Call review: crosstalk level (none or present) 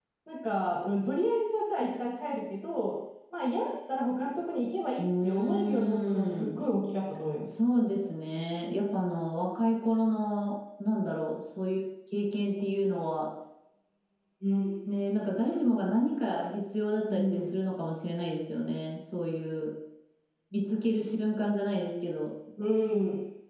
present